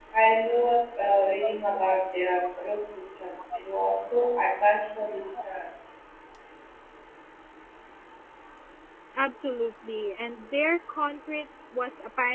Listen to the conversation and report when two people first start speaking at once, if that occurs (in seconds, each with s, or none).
none